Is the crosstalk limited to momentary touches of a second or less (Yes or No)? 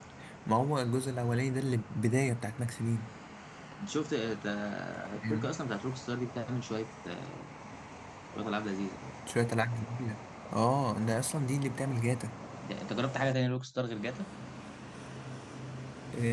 Yes